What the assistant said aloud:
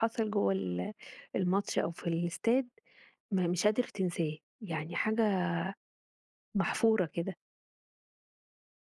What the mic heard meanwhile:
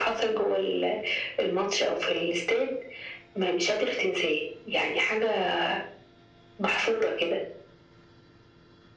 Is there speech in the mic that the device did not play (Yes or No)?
No